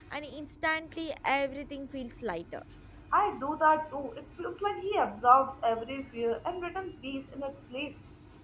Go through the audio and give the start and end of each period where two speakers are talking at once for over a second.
none

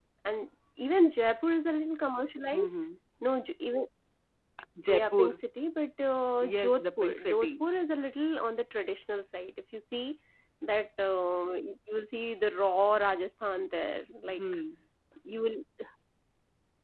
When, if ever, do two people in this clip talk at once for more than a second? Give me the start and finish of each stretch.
6.4-7.6

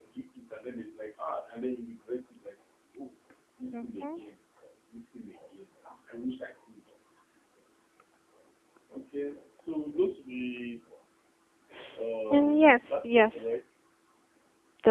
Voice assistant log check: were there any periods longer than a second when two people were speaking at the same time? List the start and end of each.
12.3-13.5

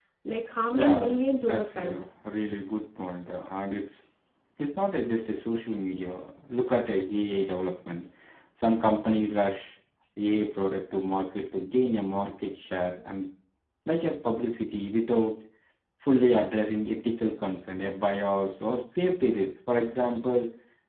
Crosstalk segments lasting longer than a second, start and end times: 0.7-2.0

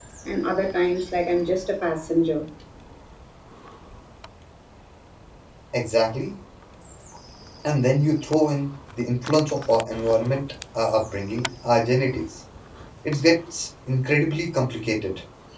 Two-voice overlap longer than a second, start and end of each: none

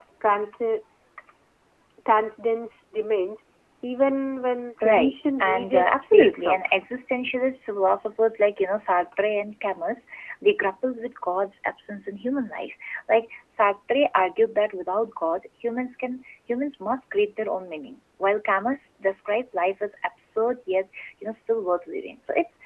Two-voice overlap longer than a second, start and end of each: 4.8-6.7

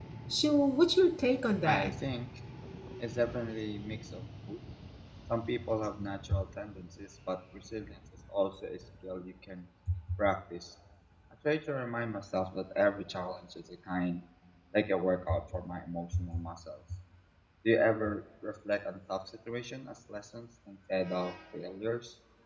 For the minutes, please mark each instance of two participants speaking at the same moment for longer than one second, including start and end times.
none

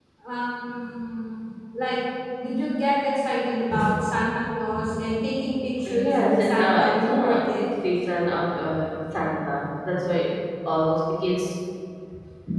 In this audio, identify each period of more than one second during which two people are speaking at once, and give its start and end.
5.9-7.4

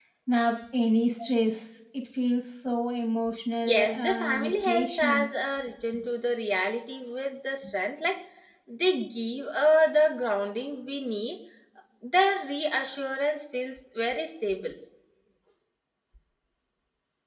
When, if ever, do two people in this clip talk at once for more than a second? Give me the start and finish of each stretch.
3.6-5.3

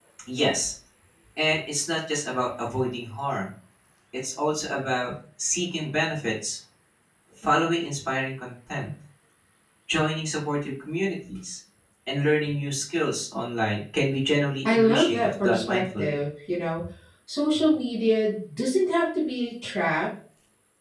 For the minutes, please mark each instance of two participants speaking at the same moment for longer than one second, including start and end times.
14.7-16.2

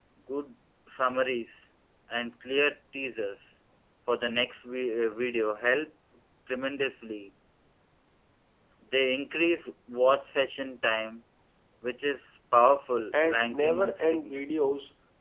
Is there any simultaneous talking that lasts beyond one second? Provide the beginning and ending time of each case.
13.2-14.4

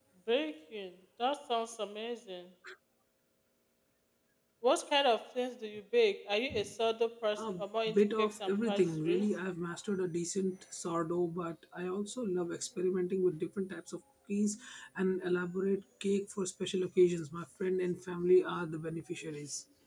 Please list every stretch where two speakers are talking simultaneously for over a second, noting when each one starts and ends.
7.9-9.2

